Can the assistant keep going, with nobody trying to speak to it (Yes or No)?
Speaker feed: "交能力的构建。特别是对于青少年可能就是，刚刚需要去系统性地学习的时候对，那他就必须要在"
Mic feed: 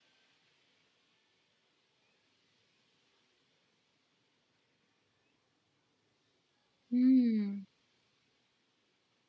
No